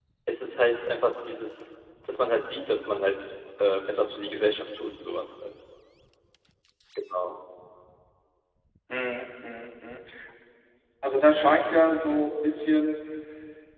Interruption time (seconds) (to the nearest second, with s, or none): none